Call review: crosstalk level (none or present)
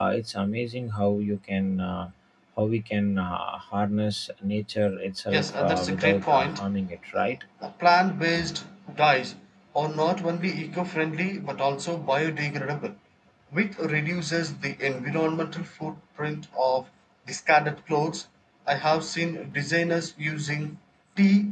present